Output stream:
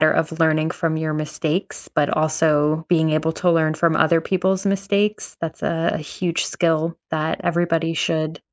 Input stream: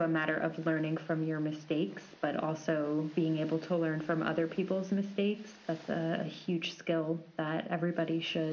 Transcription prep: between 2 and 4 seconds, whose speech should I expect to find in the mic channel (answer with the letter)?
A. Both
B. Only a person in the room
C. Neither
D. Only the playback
D